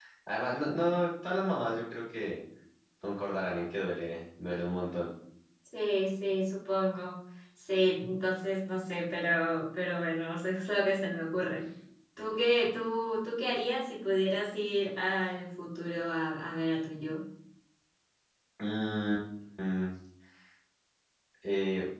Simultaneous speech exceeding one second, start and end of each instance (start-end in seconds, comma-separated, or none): none